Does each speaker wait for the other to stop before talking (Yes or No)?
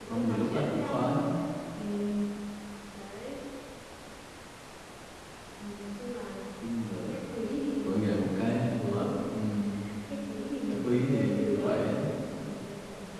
No